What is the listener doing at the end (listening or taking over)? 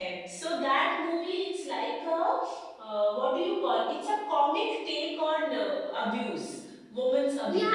taking over